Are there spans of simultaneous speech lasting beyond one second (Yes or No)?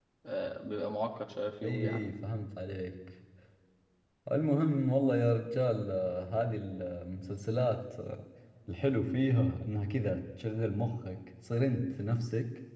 No